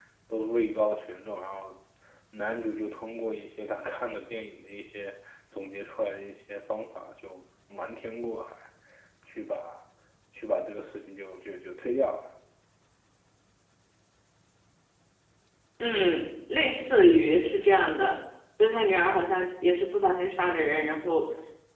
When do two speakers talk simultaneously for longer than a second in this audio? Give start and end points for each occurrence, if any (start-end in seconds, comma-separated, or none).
none